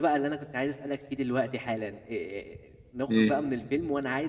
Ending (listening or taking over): listening